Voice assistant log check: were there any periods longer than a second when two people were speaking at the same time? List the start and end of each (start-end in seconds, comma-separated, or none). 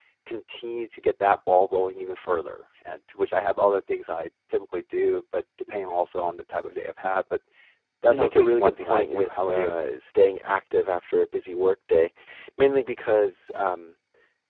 8.1-9.8